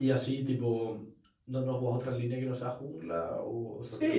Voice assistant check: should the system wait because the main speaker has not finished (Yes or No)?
No